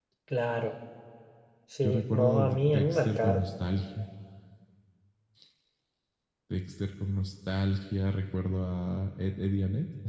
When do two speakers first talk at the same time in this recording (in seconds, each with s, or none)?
1.8 s